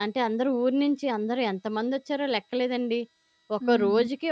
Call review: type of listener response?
listening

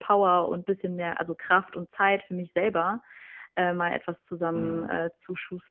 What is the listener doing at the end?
listening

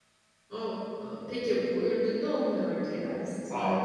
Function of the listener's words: taking over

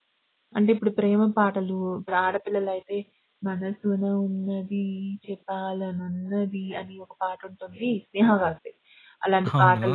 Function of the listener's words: listening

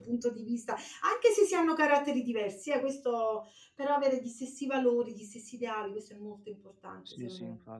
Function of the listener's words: taking over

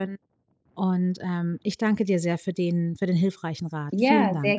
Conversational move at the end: taking over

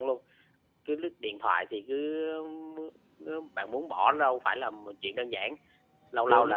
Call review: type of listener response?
listening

